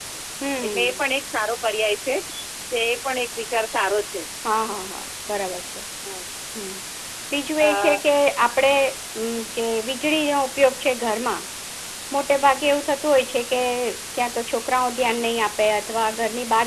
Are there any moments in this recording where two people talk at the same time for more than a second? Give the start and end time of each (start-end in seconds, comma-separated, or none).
none